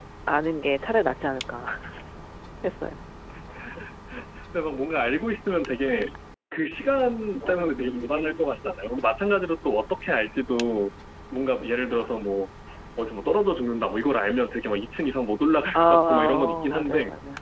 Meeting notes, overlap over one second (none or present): present